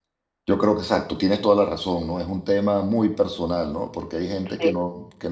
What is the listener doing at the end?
listening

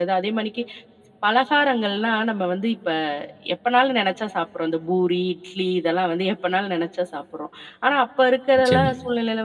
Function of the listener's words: listening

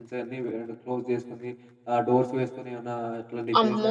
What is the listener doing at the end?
taking over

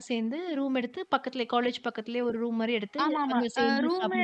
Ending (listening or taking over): taking over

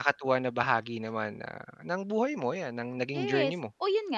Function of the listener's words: taking over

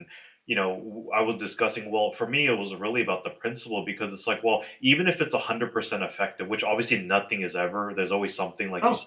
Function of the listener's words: listening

